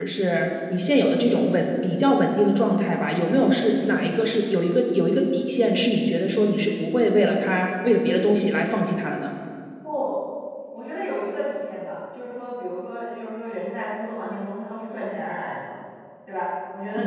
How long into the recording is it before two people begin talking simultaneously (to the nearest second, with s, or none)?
none